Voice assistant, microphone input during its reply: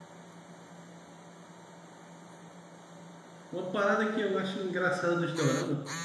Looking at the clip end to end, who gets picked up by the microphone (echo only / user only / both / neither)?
user only